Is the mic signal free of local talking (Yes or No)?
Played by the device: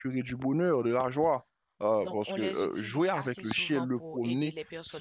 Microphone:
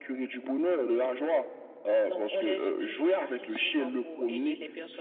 Yes